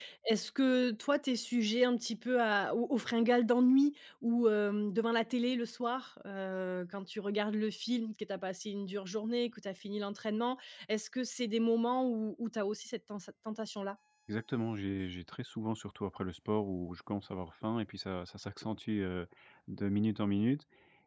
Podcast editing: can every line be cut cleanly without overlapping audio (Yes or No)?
Yes